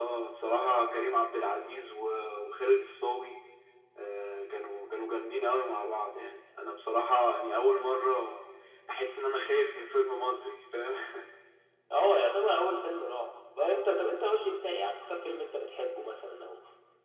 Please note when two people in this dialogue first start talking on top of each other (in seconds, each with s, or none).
none